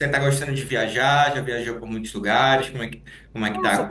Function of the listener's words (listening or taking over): taking over